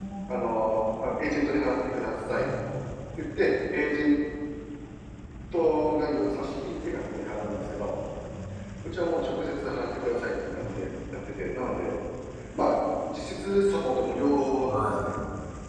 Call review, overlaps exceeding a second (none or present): none